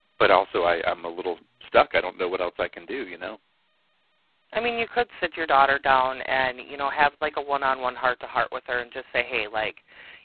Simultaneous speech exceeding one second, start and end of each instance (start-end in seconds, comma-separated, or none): none